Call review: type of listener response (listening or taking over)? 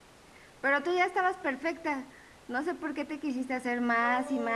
taking over